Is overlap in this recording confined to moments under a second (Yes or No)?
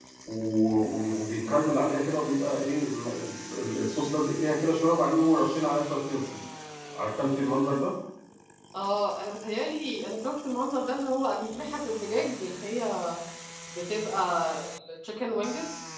Yes